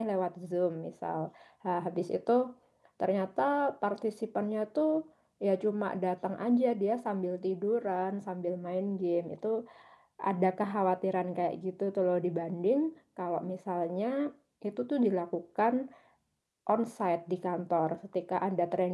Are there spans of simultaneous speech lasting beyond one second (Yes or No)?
No